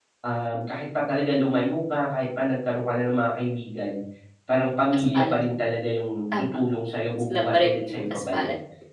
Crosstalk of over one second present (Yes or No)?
Yes